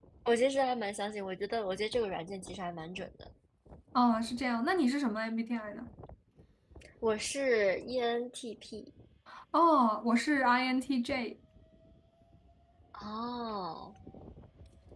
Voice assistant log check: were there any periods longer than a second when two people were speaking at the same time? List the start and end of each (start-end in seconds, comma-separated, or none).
none